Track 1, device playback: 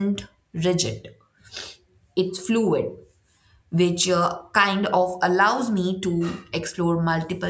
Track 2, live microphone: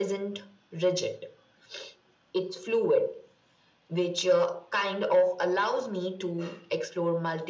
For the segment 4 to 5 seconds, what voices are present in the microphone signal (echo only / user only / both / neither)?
echo only